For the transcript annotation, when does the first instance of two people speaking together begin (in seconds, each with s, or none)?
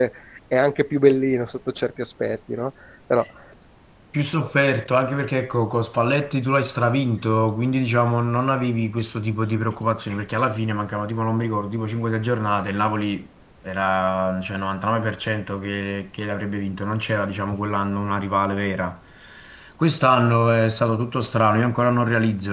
none